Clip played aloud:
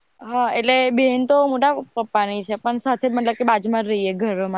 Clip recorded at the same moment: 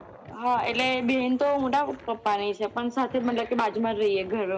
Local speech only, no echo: none

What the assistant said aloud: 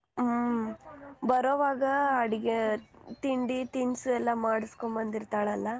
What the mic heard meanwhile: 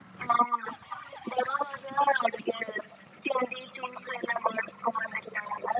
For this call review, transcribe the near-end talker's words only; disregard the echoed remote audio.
none

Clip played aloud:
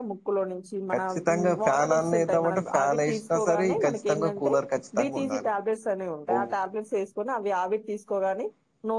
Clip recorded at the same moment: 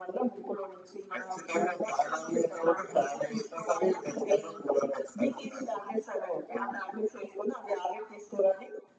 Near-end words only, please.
none

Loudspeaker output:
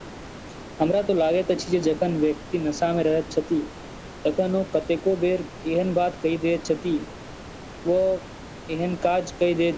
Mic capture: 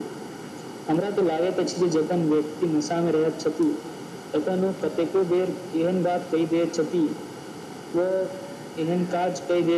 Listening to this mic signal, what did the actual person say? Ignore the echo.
none

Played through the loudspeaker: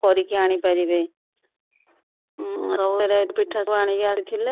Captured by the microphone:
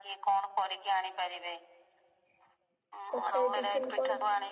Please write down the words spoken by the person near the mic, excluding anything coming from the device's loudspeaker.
ସକାଳେ ଟିଫିନ କଣ

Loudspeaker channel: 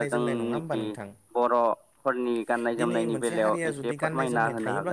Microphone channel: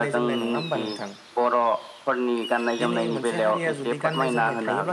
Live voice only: none

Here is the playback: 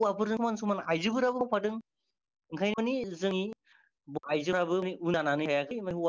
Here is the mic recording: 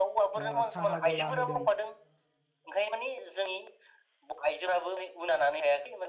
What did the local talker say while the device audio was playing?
ओ साहा गला होदों।

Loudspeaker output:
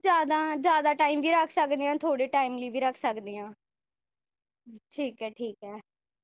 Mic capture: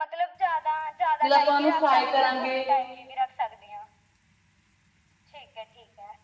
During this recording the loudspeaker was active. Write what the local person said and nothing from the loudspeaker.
ਜਦੋ ਆਪਾ ਉਹਨੂੰ ਫਰਾਈ ਕਰਾਂਗੇ

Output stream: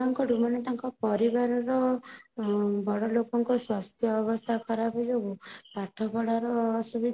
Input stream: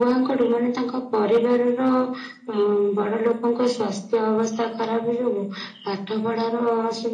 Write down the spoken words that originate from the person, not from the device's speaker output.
none

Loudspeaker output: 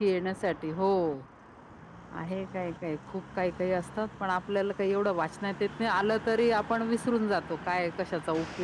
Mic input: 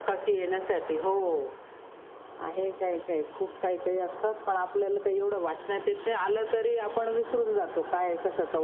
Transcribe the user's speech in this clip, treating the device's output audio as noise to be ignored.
none

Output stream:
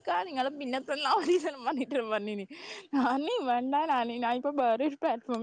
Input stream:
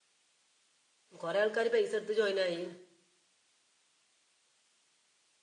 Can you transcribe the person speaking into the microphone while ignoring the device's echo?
കുറേ ആൾക്കാർ പൈസ എടുത്ത് ജോയിൻ ആയി

